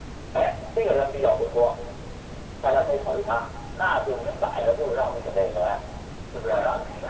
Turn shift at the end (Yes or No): No